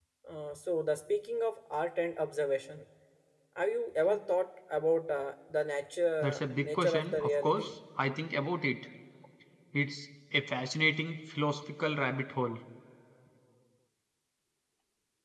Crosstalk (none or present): present